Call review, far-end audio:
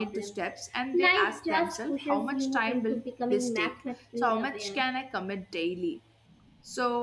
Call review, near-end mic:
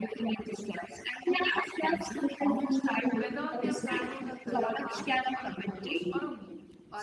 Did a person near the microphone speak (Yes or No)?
Yes